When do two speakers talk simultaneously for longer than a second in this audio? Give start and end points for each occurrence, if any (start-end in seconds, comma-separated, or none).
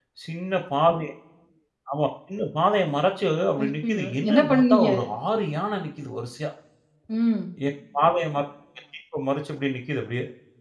3.6-4.9